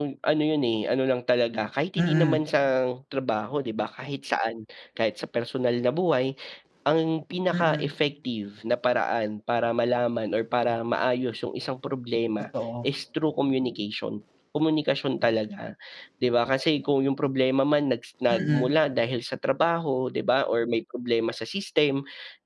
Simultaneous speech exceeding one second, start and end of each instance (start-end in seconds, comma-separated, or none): none